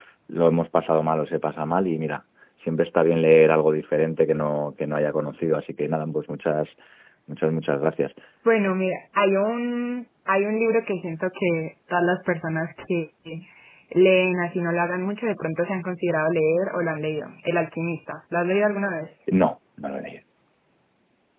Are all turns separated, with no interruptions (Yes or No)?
Yes